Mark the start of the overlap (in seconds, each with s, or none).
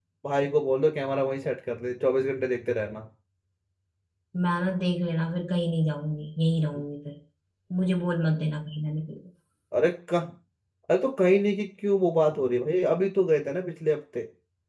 none